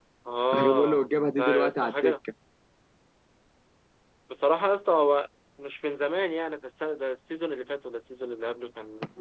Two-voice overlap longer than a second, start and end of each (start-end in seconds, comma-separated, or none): 0.5-2.1